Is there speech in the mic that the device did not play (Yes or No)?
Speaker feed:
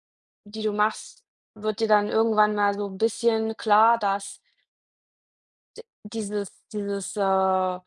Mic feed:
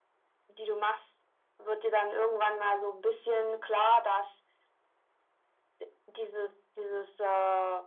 No